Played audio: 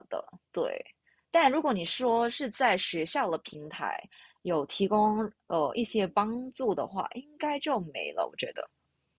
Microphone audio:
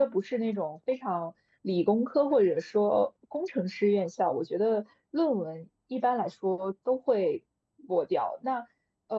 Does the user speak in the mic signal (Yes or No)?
Yes